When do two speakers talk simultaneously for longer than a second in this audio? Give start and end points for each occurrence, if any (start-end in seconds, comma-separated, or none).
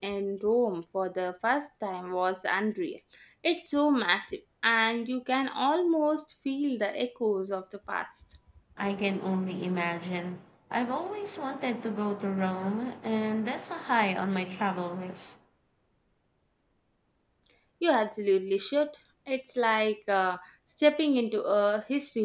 none